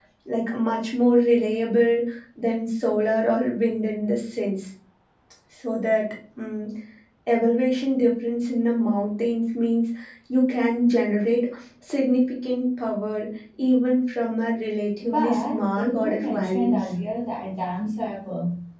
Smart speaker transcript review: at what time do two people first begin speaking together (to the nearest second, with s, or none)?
15 s